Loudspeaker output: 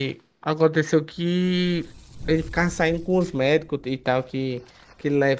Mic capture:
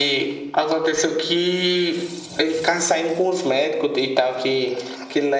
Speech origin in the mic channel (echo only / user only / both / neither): echo only